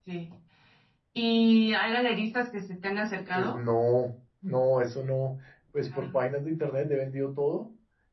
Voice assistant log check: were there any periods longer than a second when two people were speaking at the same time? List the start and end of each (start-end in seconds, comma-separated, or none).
none